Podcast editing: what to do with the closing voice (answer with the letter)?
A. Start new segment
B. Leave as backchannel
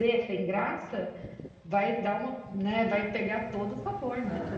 A